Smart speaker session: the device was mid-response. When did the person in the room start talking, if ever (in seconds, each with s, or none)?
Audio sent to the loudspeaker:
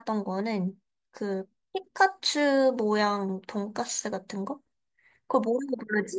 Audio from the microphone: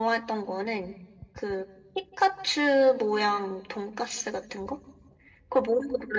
none